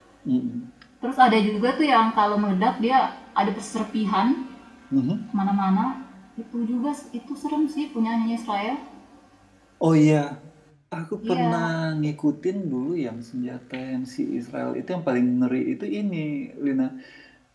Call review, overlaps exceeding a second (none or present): none